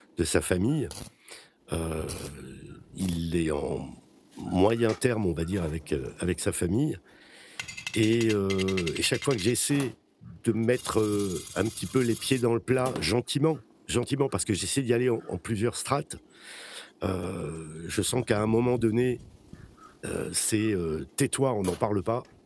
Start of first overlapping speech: none

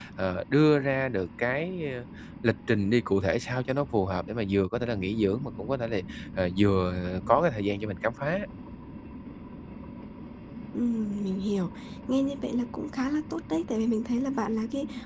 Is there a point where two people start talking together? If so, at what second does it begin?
none

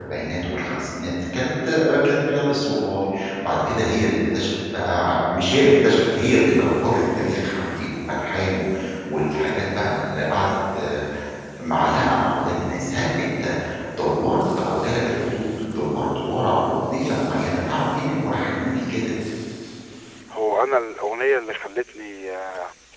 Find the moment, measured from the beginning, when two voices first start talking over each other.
none

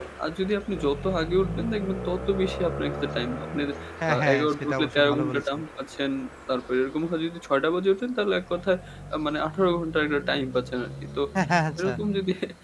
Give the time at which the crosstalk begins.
4.1 s

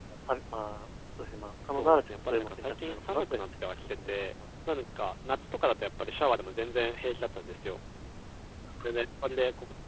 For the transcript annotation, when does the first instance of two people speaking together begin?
1.6 s

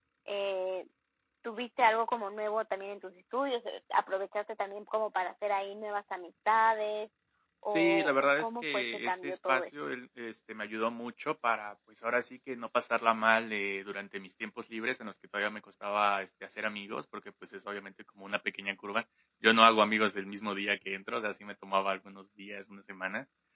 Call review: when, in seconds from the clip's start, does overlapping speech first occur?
7.7 s

